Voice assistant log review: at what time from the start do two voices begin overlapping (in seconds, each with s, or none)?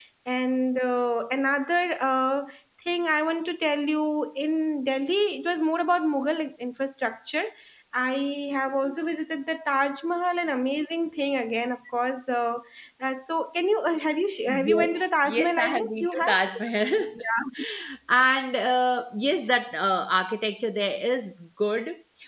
14.5 s